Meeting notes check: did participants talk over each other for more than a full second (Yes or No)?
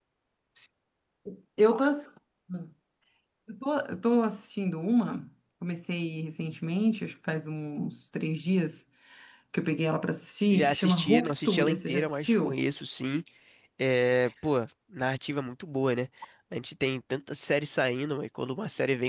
Yes